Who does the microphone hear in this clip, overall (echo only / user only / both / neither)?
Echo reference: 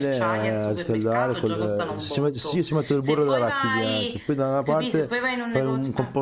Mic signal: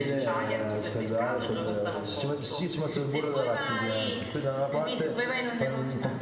echo only